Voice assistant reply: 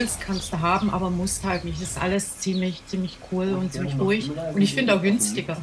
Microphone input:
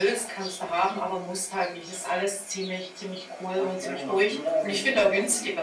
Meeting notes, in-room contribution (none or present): none